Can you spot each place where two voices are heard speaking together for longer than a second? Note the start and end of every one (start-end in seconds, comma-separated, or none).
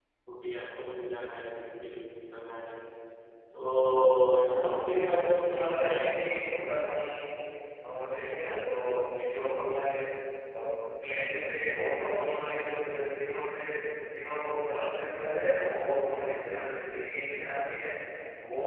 4.5-6.6